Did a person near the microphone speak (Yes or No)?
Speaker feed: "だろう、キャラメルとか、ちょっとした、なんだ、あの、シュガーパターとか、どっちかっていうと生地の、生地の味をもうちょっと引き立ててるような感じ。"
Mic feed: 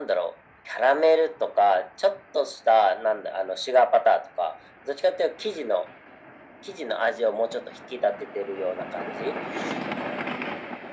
No